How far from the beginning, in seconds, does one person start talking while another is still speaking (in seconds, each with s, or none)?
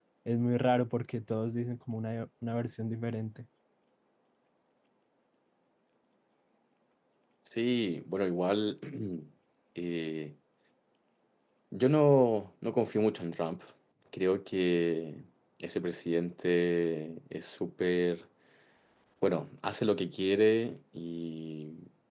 none